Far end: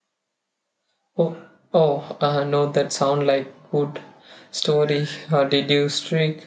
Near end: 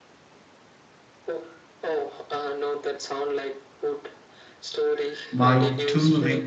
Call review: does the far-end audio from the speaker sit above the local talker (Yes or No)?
No